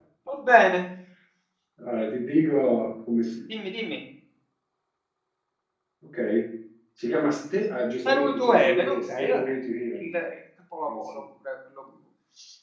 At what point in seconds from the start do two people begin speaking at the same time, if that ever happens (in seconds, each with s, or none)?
8.1 s